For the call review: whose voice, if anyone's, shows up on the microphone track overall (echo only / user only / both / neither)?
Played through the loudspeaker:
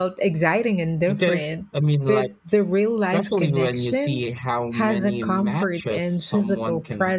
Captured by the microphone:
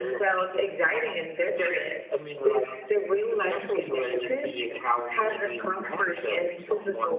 echo only